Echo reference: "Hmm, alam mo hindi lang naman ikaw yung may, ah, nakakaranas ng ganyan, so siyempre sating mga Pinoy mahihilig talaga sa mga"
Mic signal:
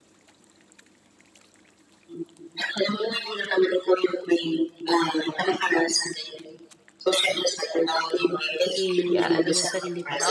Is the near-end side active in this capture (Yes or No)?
Yes